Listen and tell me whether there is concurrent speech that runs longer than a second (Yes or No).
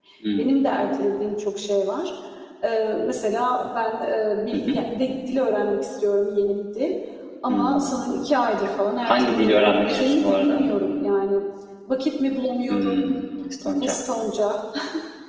Yes